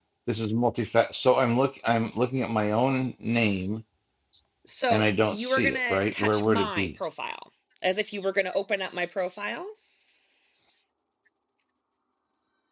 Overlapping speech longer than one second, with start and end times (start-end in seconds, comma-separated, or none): 4.9-6.9